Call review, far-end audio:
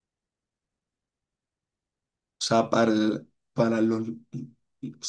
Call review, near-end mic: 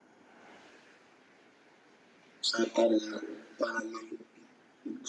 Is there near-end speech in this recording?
No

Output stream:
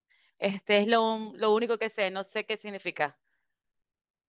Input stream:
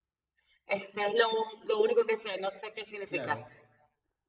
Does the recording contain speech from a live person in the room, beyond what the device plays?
Yes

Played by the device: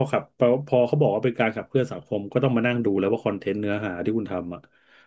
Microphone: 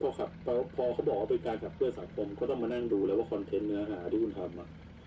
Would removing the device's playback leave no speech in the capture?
Yes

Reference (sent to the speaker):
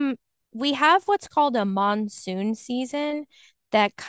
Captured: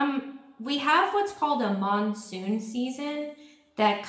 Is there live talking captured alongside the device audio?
No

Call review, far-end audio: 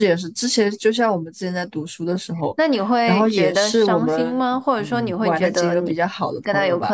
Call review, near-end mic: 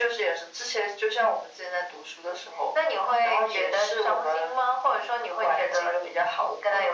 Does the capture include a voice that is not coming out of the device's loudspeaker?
No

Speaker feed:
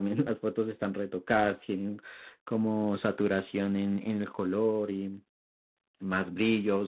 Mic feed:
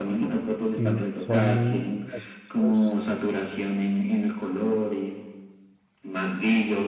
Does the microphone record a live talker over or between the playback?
Yes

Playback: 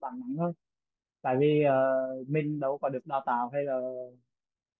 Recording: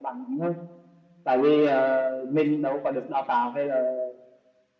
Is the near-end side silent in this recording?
Yes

